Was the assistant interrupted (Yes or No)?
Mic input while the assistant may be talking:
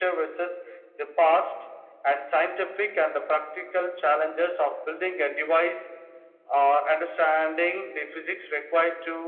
No